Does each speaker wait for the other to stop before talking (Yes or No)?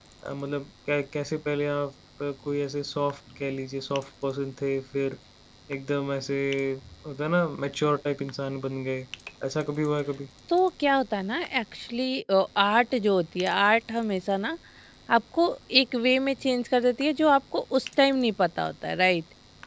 Yes